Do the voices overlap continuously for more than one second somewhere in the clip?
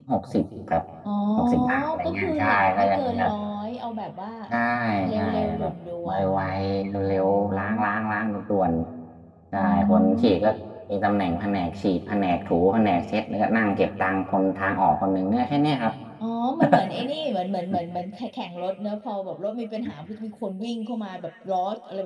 Yes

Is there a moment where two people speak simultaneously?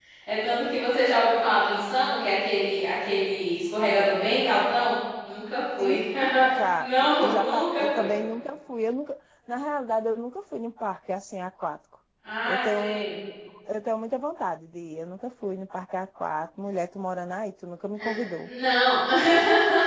Yes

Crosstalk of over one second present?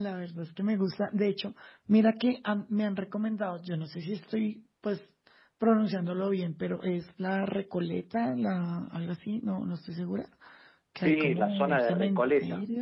Yes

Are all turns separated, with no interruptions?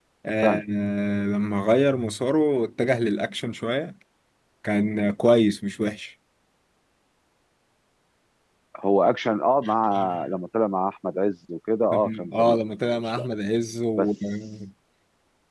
No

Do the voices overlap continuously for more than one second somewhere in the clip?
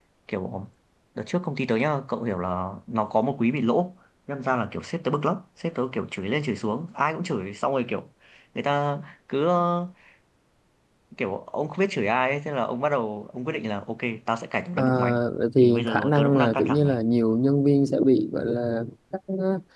Yes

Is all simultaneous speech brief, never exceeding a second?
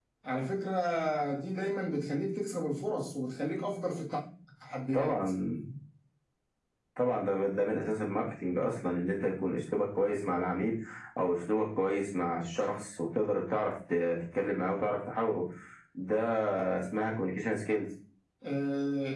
Yes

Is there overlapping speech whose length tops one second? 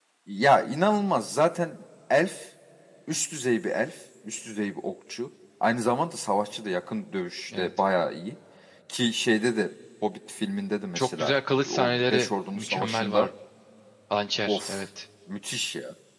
Yes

